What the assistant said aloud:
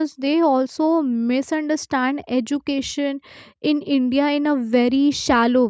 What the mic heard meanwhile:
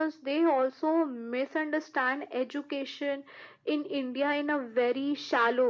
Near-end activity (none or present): none